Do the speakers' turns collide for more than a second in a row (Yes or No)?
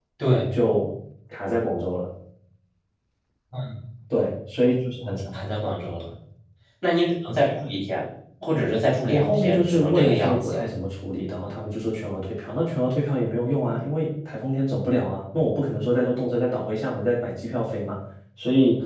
Yes